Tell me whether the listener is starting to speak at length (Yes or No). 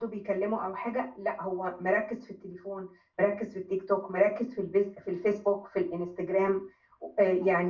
Yes